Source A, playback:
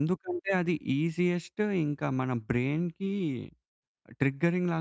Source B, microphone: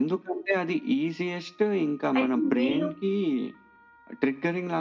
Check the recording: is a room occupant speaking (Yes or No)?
Yes